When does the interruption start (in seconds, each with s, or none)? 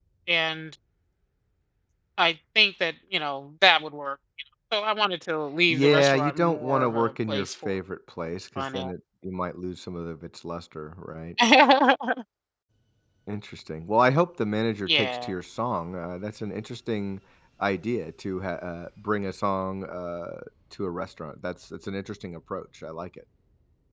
5.7 s